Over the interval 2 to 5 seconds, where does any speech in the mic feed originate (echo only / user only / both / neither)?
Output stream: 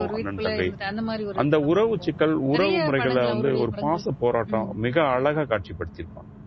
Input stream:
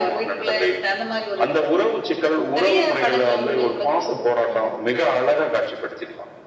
echo only